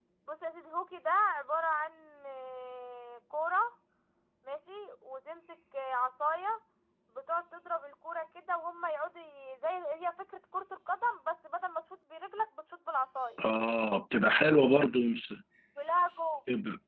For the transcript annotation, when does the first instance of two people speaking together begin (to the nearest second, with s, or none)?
none